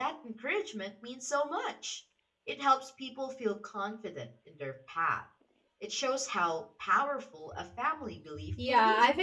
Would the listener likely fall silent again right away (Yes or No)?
No